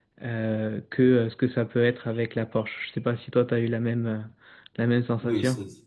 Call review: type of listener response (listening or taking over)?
taking over